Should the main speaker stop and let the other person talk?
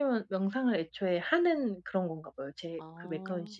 Yes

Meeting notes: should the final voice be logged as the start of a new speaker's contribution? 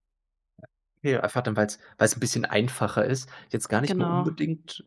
No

